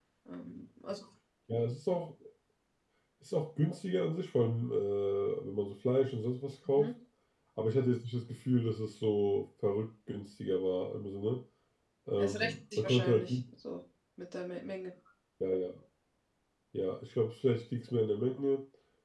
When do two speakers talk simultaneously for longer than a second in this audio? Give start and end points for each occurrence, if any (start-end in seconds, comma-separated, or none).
12.2-13.4